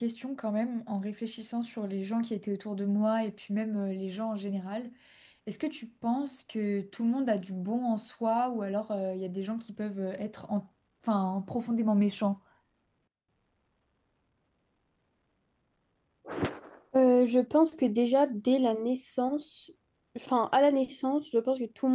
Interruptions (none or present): none